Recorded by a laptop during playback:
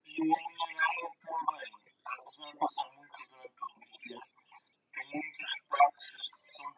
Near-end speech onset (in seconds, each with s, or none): none